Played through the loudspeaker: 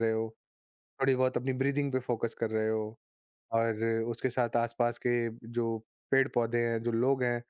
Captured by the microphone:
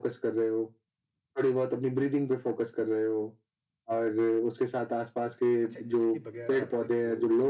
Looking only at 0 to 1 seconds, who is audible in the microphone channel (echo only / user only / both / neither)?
echo only